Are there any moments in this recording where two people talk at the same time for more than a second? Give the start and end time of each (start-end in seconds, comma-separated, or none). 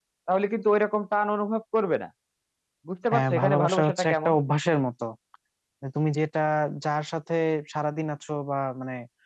3.1-4.3